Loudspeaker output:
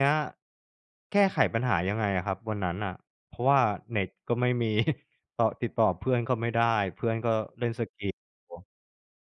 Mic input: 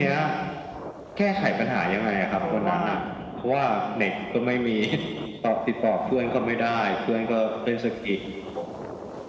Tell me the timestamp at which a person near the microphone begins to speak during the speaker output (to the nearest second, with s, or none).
2 s